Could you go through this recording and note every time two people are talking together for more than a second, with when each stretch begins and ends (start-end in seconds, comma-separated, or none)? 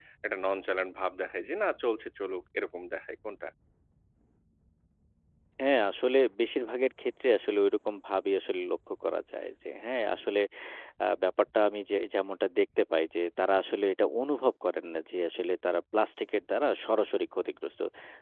none